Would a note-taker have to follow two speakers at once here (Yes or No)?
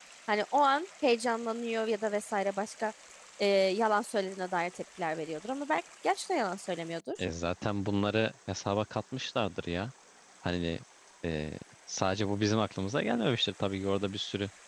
No